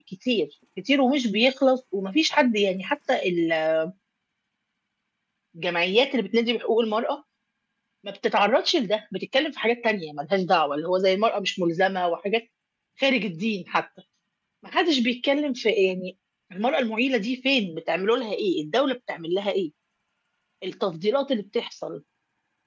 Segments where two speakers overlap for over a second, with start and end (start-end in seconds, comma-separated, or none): none